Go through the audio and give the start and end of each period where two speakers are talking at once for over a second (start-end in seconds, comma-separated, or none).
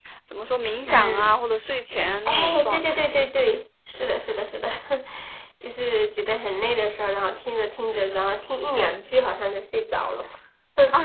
2.2-3.5